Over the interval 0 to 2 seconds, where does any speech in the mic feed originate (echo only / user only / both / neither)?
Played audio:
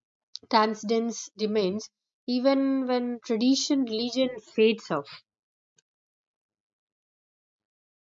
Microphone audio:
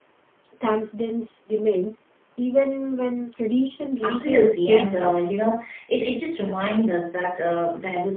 echo only